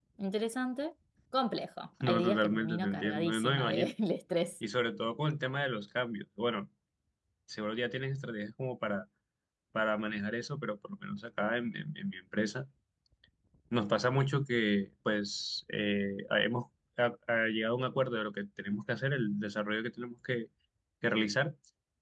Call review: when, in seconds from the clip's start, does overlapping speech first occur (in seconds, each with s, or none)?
2.0 s